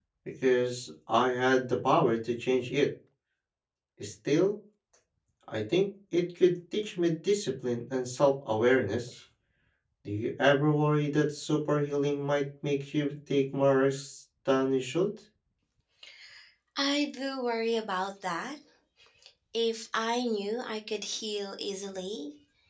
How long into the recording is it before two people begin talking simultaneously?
none

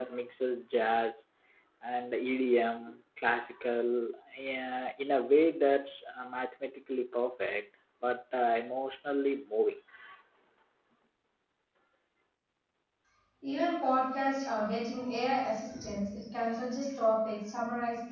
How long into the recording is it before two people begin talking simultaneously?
none

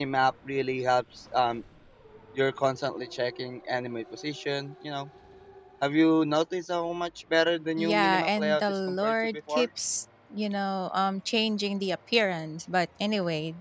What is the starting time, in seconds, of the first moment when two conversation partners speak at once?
7.8 s

